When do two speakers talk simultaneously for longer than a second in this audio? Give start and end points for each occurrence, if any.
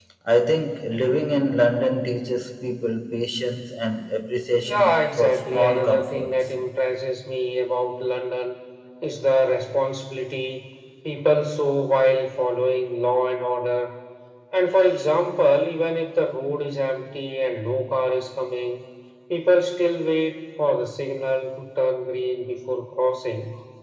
4.6-6.3

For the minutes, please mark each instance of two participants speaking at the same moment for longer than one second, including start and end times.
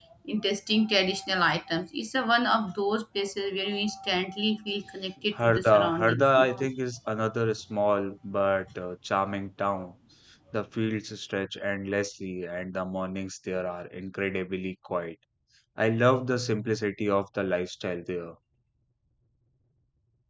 5.3-6.7

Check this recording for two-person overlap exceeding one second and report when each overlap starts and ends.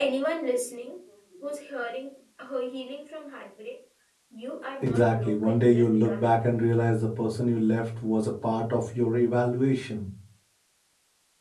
4.8-6.3

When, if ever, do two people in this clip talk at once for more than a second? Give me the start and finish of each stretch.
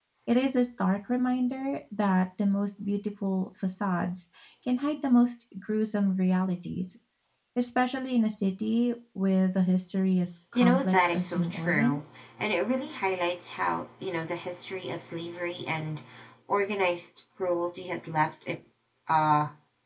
10.6-12.0

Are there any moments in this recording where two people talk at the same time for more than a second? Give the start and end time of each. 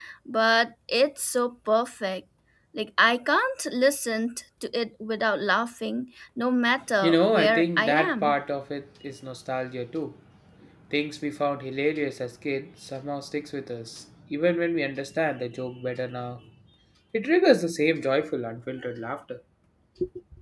7.0-8.3

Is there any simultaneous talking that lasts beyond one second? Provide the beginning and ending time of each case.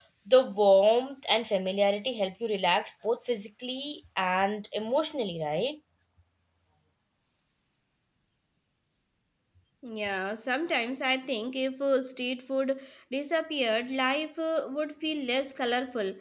none

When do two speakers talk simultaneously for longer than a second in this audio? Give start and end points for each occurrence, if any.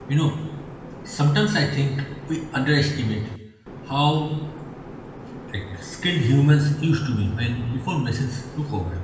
none

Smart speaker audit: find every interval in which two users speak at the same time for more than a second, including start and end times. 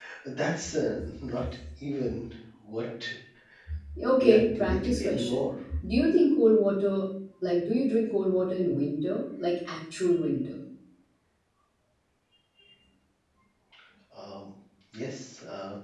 4.2-5.4

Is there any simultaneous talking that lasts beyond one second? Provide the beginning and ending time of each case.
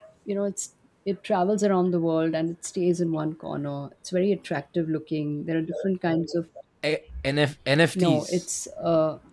none

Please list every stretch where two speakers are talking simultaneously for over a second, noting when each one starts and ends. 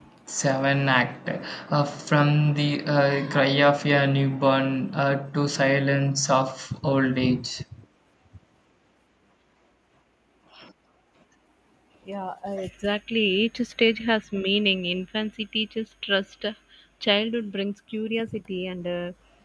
none

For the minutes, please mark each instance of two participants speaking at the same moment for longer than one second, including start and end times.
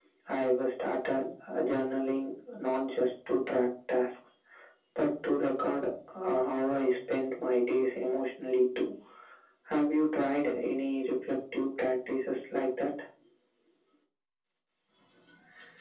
none

